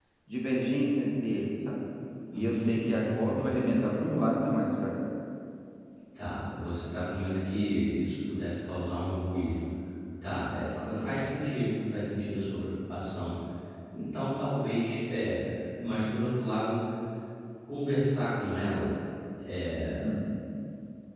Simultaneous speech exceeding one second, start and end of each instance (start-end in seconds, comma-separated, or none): 2.3-3.6